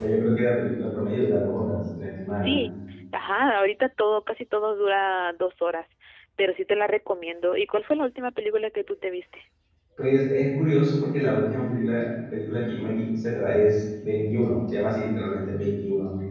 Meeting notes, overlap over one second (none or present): none